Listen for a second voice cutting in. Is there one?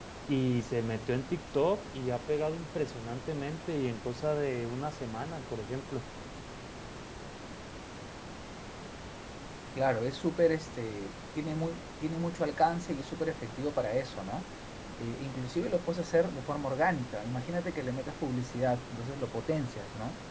No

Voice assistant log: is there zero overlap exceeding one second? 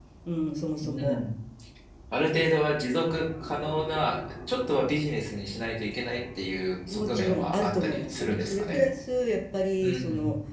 No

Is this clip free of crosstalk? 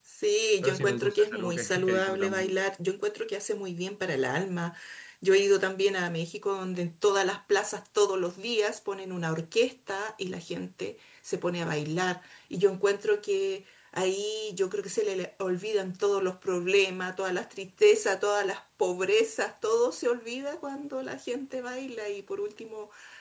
No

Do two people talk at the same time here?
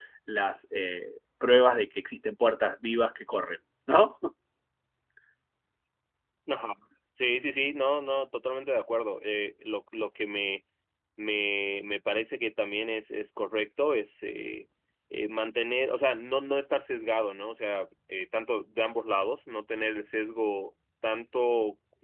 No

